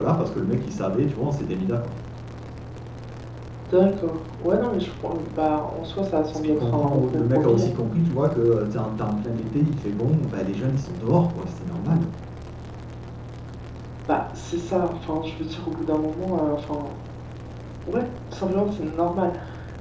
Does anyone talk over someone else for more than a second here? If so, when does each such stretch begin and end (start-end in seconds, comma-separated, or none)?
6.3-7.7